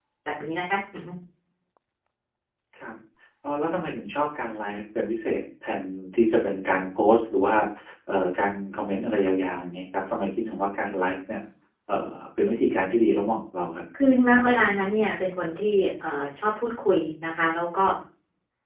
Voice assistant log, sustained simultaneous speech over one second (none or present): none